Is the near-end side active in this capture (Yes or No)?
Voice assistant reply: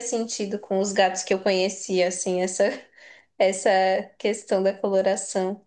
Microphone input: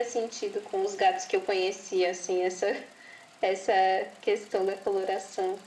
No